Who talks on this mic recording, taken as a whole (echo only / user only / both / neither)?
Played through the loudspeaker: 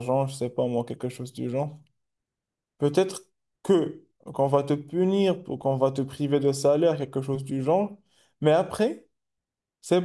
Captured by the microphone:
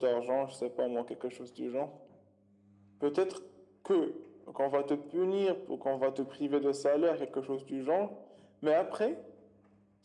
echo only